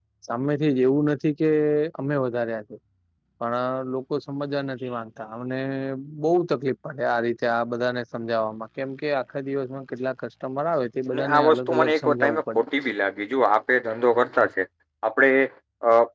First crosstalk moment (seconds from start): 11 s

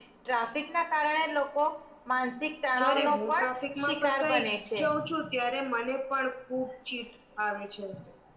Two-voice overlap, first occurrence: 3 s

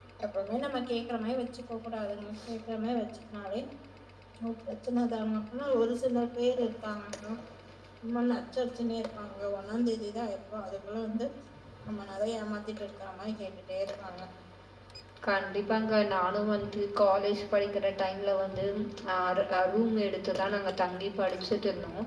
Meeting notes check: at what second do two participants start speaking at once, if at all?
none

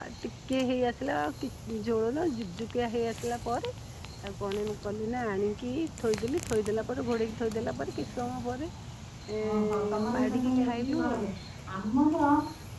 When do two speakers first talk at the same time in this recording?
9 s

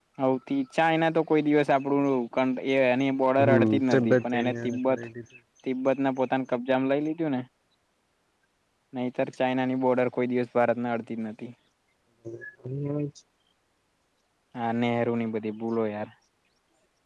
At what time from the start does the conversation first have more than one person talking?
3 s

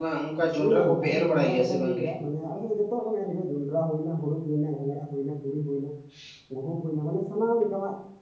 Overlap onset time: 1 s

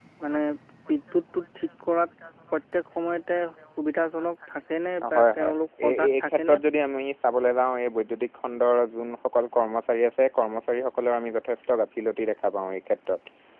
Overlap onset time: 5 s

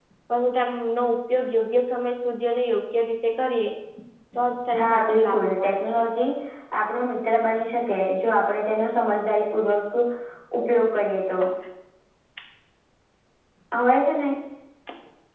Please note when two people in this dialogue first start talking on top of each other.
5 s

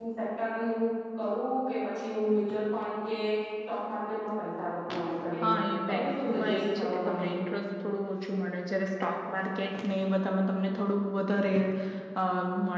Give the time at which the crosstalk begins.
6 s

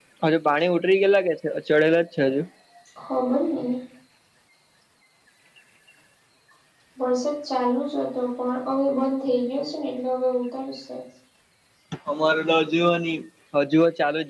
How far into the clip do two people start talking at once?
none

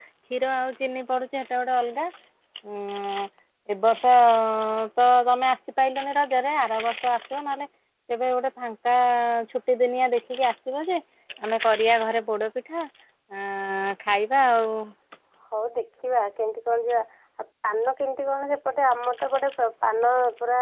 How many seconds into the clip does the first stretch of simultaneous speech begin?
none

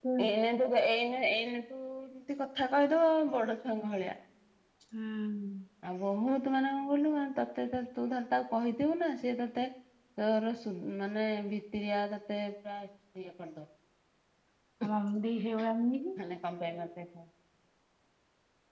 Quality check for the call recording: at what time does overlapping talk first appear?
none

